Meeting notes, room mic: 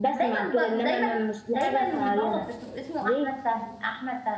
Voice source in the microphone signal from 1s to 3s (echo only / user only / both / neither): both